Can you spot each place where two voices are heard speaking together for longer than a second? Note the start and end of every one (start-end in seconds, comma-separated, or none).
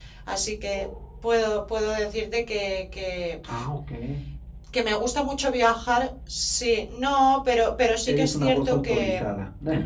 8.1-9.4